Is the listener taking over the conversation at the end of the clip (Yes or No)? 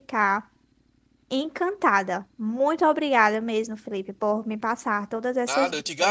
Yes